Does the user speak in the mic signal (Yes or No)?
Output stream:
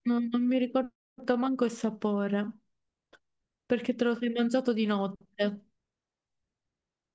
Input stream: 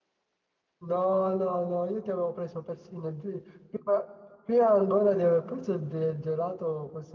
Yes